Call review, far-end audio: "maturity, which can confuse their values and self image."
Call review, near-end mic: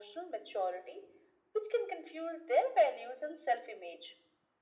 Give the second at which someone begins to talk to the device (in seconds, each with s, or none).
none